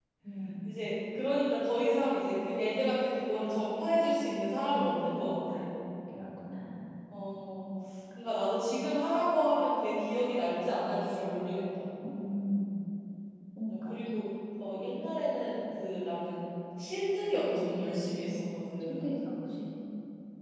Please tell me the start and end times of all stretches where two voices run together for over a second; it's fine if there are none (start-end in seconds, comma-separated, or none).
none